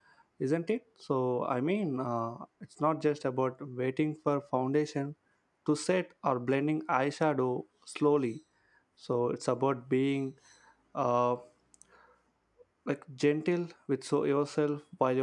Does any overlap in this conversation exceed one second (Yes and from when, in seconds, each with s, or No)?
No